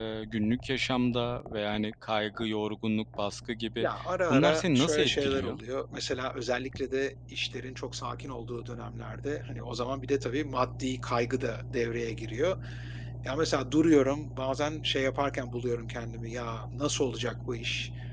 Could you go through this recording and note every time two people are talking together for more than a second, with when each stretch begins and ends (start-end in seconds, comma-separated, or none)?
4.3-5.6